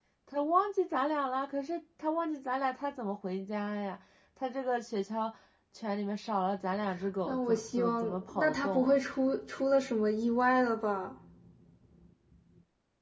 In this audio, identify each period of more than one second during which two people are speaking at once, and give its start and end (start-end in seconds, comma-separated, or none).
7.2-9.0